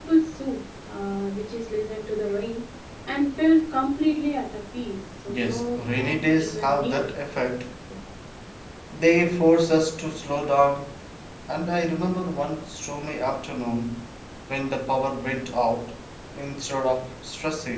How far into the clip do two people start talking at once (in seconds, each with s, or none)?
5.3 s